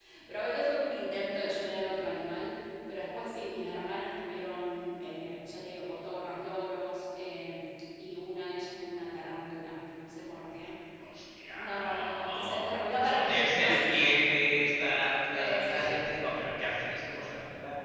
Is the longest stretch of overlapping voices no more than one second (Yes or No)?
No